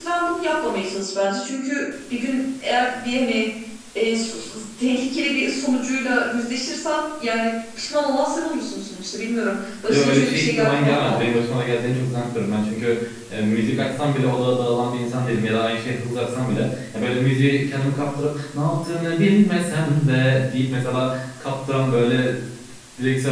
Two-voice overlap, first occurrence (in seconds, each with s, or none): 9.9 s